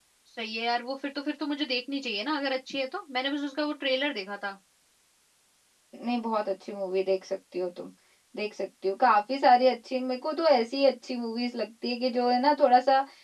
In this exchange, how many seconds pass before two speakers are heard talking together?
none

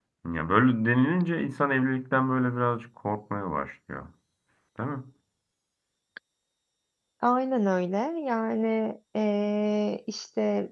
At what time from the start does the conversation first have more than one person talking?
none

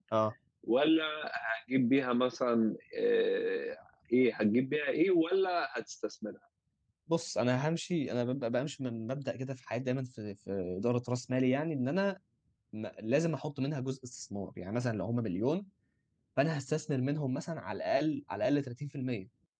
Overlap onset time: none

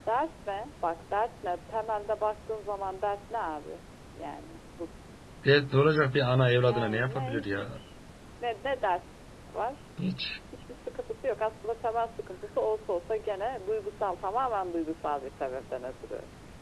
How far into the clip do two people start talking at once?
6.6 s

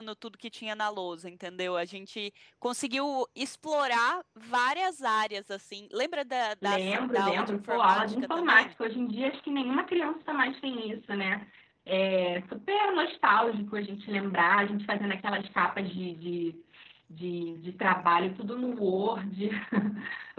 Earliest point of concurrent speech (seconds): 6.6 s

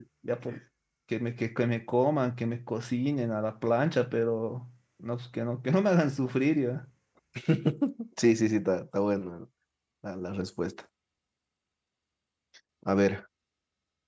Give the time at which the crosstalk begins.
none

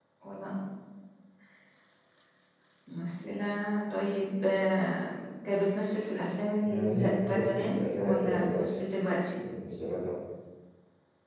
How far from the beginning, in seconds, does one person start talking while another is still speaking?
6.6 s

